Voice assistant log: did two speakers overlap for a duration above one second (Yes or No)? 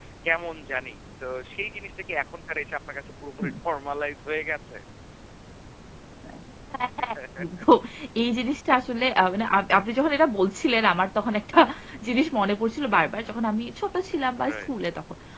No